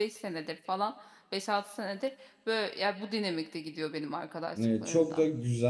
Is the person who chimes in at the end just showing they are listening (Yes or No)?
No